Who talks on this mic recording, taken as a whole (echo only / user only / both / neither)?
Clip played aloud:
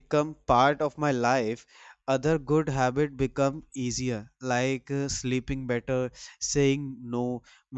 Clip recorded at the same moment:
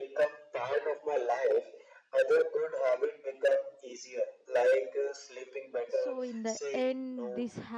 both